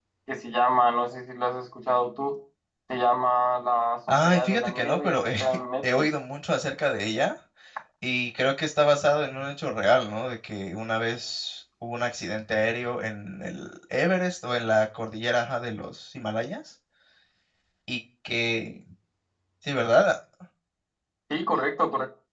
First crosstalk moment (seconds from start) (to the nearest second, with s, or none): 4 s